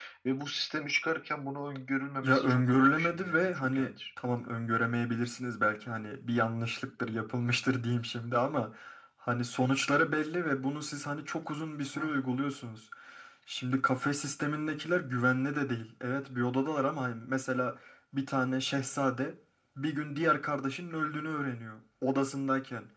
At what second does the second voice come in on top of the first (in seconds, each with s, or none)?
2.2 s